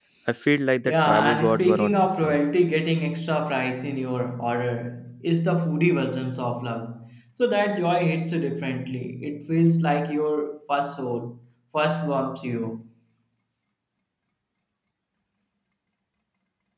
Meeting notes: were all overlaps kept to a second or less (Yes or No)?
No